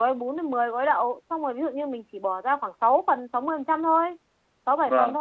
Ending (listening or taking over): listening